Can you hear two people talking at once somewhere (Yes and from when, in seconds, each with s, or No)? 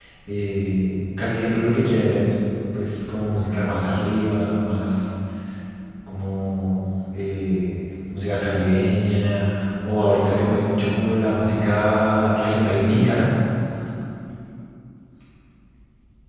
No